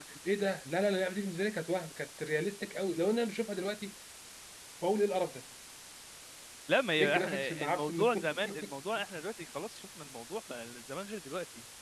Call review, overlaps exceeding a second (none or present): present